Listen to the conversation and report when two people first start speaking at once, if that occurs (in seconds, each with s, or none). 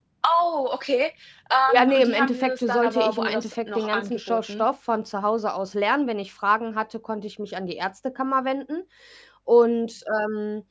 1.7 s